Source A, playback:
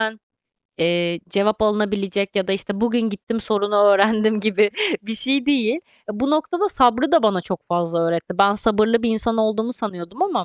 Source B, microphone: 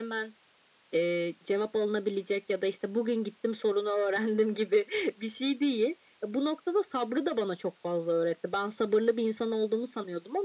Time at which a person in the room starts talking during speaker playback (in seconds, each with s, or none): none